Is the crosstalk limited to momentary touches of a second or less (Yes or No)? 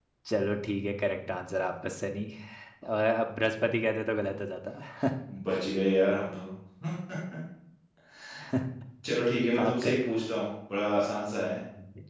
Yes